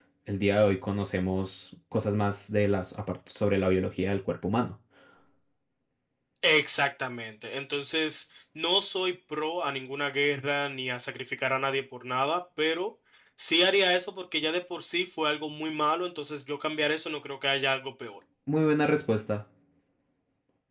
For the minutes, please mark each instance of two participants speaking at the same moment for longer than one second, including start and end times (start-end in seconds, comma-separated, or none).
none